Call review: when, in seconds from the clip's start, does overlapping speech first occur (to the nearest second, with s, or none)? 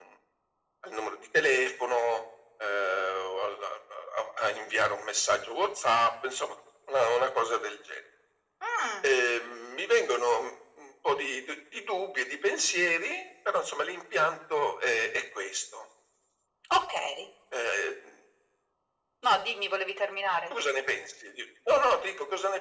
none